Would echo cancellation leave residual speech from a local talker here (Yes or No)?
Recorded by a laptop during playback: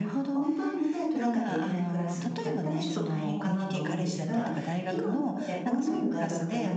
Yes